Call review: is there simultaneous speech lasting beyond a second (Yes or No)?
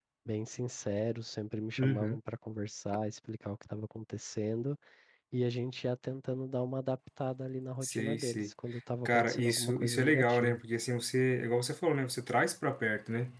Yes